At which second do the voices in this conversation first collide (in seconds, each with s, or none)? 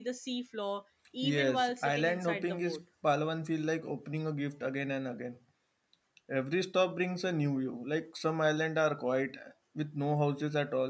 1.2 s